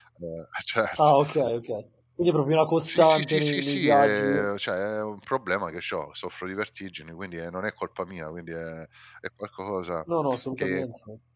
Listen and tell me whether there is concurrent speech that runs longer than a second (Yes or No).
Yes